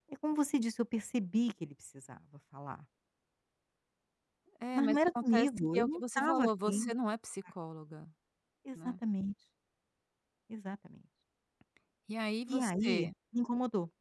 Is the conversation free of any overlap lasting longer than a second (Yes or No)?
No